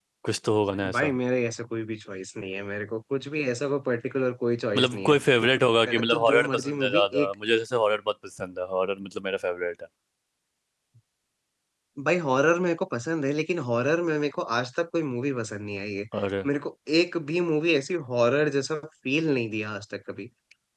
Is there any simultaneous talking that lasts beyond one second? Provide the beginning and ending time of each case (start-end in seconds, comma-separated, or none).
5.9-7.3